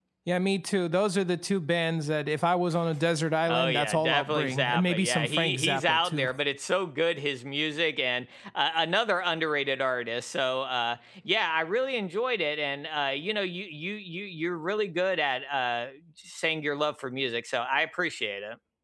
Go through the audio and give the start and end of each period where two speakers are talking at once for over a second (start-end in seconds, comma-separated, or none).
3.5-6.3